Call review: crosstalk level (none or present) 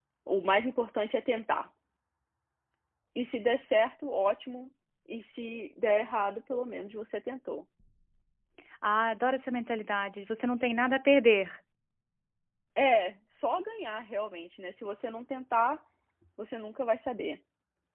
none